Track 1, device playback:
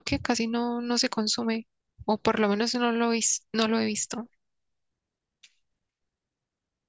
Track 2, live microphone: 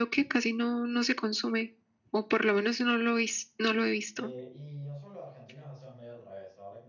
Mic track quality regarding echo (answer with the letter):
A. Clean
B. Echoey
B